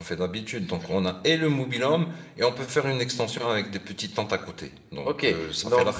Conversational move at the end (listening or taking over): taking over